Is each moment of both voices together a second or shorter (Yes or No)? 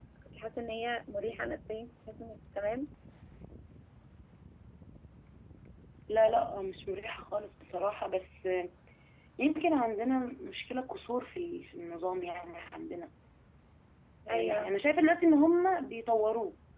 Yes